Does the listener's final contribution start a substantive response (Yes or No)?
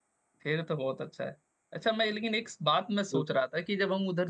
No